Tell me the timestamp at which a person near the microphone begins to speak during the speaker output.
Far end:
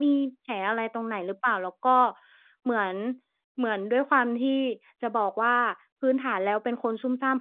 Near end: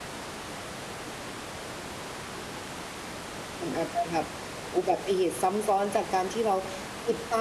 3.6 s

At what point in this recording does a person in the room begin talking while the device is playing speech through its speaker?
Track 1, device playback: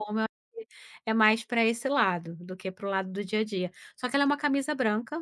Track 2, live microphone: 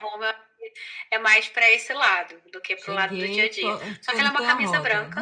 2.8 s

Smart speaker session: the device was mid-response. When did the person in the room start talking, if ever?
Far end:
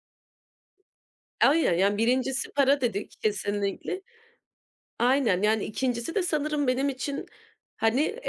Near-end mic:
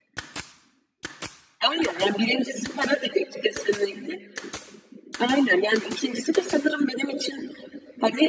none

